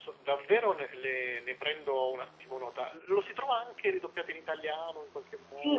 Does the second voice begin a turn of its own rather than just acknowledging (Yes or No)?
Yes